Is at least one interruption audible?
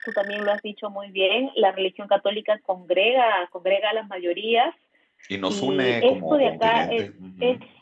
Yes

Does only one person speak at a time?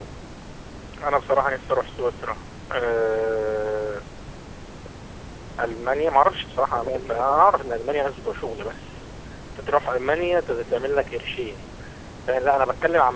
No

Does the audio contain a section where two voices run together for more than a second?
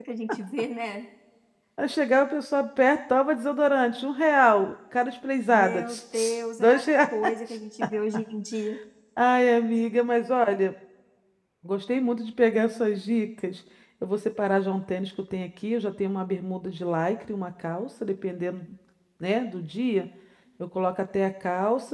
Yes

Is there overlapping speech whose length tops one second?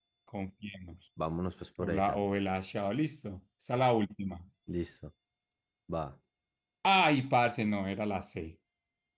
No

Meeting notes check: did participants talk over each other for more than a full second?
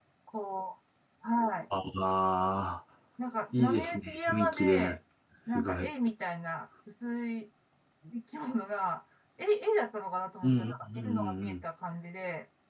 Yes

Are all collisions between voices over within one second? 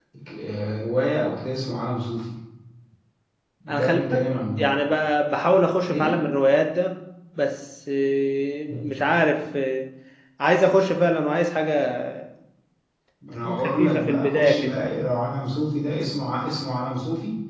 No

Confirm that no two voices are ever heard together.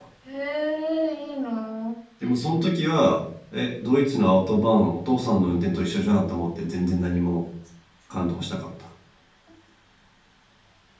Yes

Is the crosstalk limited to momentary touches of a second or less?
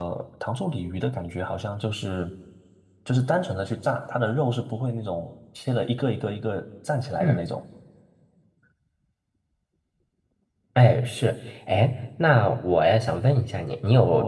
Yes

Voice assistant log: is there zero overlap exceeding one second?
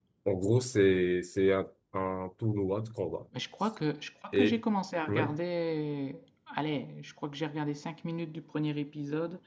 Yes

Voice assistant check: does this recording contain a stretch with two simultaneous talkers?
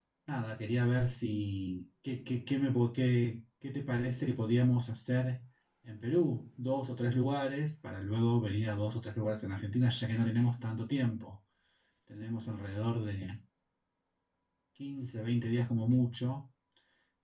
No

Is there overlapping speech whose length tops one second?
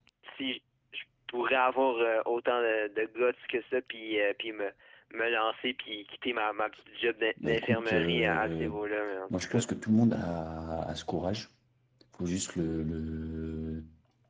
Yes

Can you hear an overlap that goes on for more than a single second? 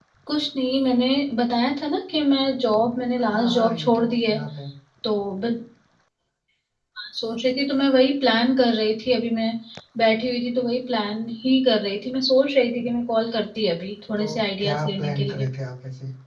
Yes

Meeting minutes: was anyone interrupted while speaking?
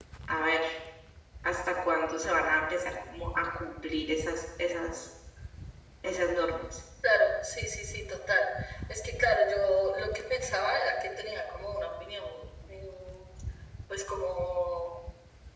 No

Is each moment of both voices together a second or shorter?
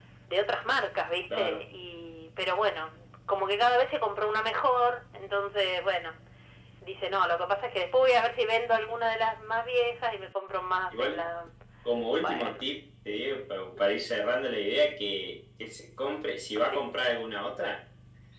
Yes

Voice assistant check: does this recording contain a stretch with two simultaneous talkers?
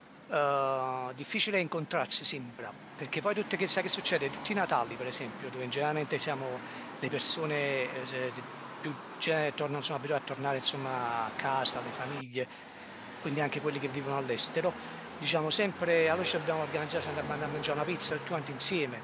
No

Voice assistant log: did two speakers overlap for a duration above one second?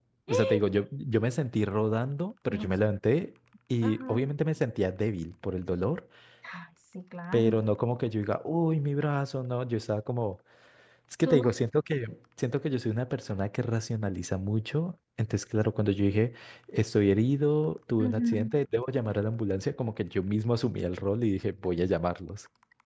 No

